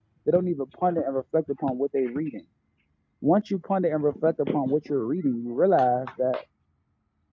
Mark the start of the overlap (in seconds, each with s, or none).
none